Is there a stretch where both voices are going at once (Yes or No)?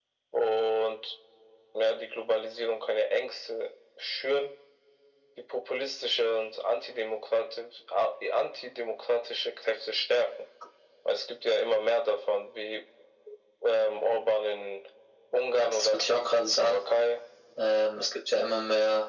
Yes